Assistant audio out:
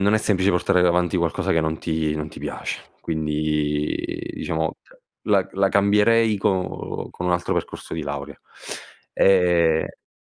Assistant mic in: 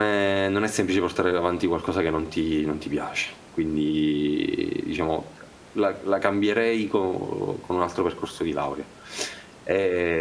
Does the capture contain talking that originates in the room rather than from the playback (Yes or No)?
No